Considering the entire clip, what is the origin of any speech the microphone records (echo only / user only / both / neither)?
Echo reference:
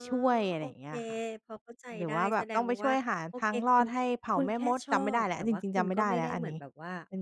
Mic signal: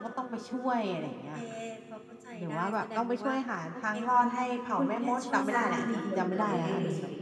both